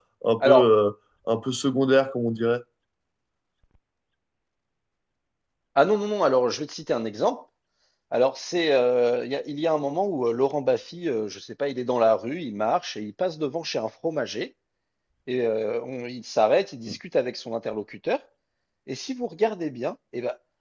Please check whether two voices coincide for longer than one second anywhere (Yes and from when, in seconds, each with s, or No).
No